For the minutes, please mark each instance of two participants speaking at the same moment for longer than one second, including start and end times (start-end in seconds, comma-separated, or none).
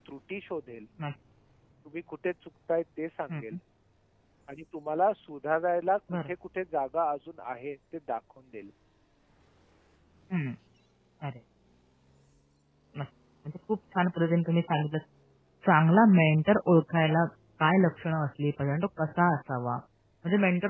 none